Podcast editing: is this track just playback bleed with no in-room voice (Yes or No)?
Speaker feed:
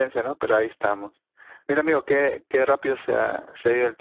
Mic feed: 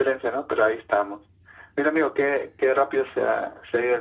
Yes